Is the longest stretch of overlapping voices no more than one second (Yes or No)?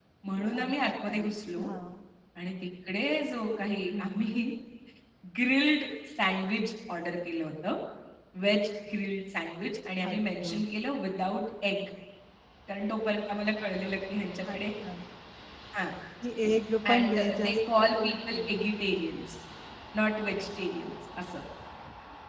No